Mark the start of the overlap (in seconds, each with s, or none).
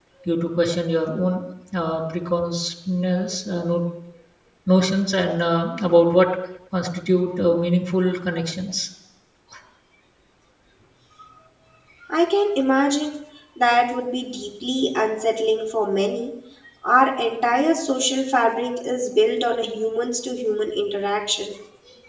none